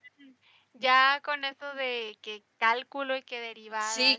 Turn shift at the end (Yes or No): Yes